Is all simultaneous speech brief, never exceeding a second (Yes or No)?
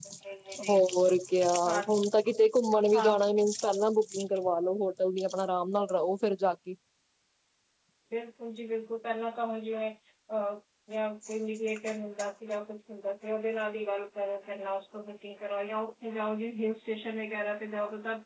Yes